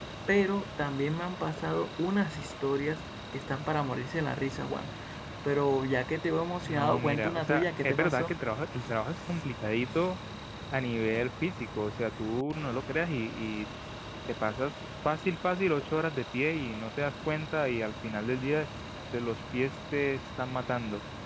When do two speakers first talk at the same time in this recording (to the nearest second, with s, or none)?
7 s